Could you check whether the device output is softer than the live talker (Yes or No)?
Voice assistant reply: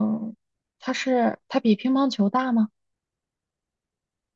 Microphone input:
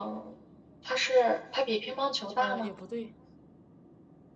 No